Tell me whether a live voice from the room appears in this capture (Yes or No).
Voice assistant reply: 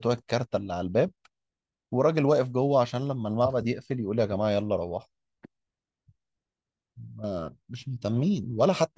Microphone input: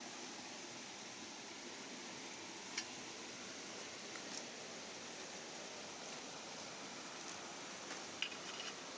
No